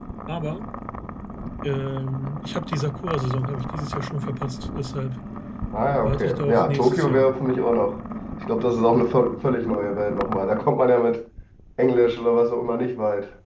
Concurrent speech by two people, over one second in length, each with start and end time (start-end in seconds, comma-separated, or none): 6.0-7.3